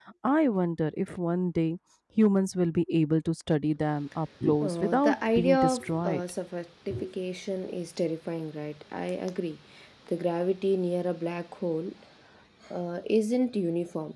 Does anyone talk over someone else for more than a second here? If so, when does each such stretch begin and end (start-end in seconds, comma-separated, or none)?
4.6-6.2